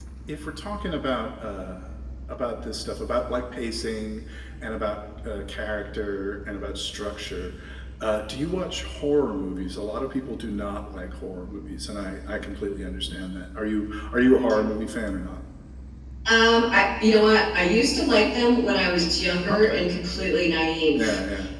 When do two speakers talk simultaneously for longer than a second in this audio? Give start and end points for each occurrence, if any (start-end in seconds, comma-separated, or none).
none